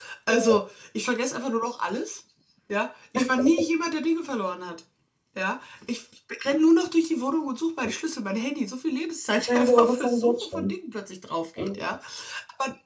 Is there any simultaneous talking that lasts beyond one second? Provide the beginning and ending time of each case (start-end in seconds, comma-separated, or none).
9.5-10.7